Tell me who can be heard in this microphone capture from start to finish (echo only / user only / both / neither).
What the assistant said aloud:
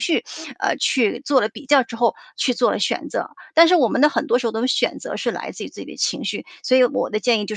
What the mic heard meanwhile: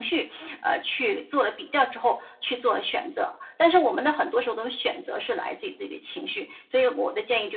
echo only